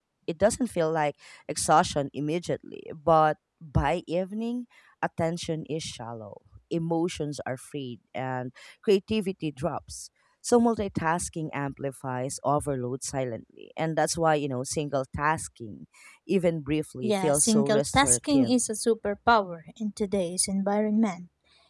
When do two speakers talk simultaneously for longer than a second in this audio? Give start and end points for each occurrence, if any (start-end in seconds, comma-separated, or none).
17.0-18.6